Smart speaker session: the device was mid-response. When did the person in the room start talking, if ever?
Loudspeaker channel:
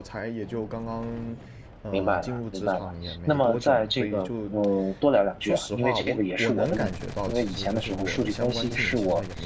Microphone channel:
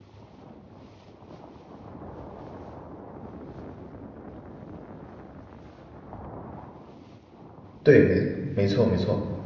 7.8 s

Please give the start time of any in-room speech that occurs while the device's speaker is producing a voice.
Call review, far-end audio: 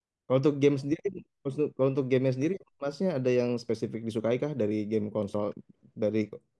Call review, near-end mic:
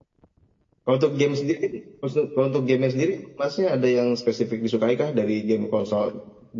none

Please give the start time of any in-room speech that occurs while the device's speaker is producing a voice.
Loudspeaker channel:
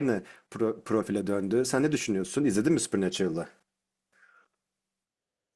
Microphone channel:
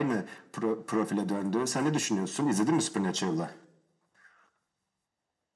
none

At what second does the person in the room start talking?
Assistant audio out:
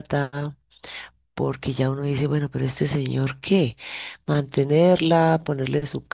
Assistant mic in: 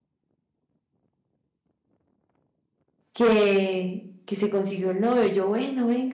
3.1 s

